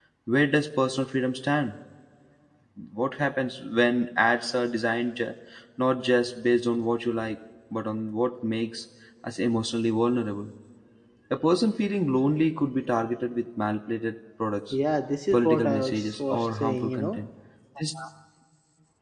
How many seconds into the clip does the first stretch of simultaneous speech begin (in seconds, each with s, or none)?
15.3 s